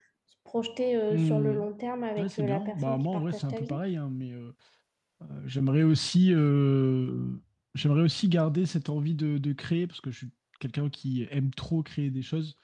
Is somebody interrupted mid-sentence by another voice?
Yes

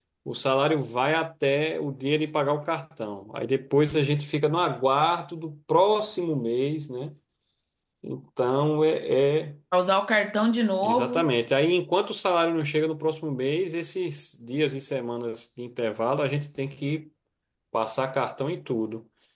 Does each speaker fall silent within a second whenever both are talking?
Yes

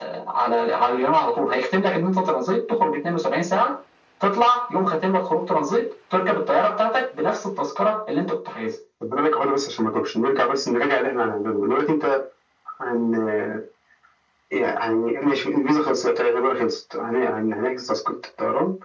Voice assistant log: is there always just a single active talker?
Yes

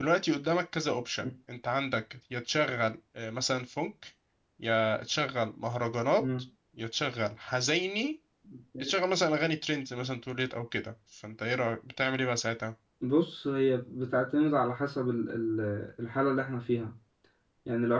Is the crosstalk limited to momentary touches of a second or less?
Yes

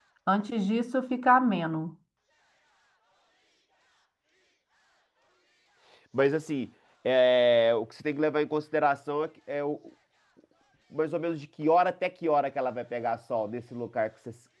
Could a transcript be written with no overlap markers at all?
Yes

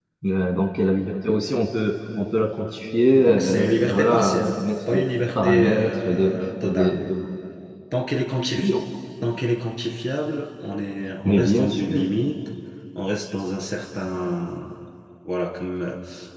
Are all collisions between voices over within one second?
No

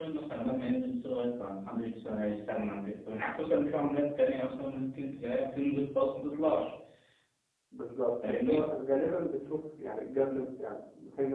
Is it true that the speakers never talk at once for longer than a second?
Yes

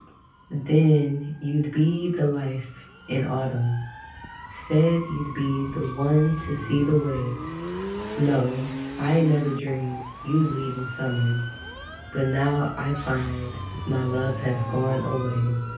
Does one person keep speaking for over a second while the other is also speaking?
No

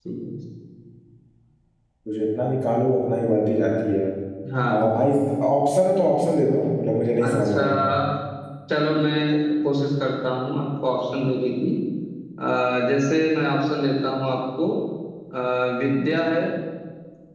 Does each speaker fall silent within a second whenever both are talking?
Yes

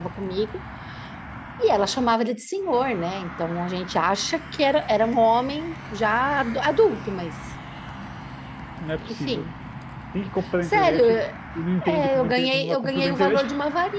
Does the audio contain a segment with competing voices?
Yes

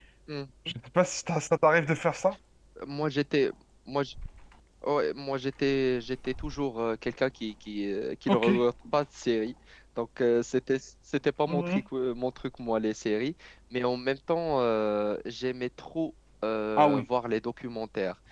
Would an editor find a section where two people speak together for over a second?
No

